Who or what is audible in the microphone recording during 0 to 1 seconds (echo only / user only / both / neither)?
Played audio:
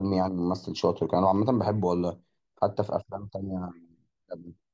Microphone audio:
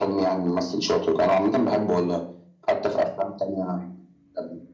echo only